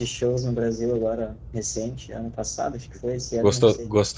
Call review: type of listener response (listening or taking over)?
taking over